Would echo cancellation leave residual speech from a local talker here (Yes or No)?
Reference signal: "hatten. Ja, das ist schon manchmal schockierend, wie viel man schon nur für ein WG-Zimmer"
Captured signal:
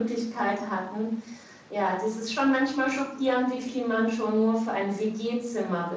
No